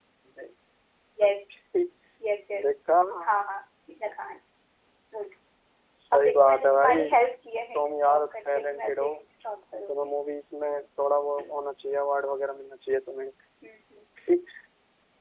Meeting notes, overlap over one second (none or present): present